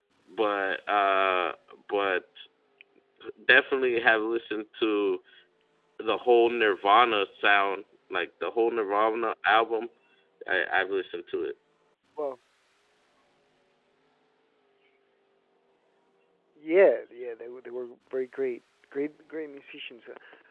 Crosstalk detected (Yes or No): No